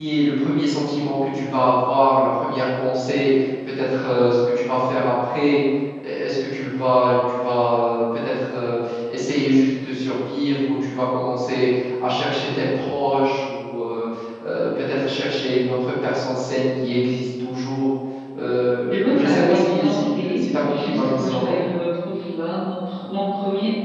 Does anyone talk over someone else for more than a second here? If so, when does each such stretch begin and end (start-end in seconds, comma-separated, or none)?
18.9-21.6